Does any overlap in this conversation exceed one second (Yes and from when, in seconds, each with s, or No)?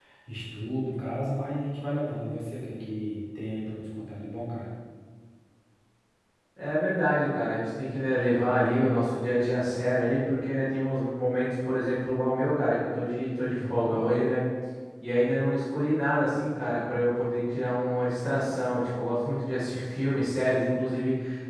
No